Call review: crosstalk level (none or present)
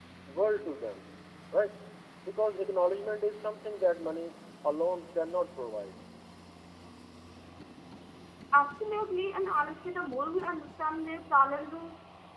none